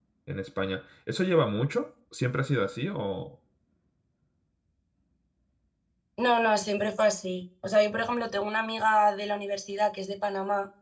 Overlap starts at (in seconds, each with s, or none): none